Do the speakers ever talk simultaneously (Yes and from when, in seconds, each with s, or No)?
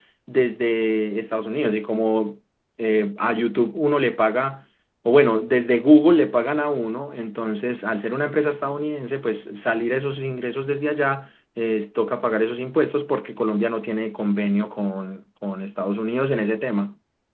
No